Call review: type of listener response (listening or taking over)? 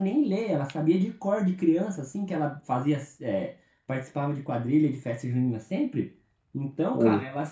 listening